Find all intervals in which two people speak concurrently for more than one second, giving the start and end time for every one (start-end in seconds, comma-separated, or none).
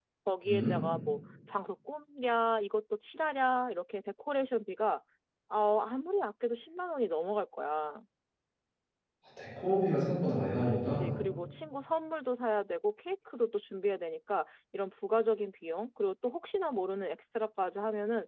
none